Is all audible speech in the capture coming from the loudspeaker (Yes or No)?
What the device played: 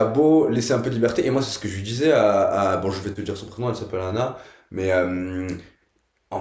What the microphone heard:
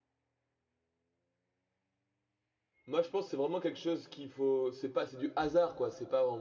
No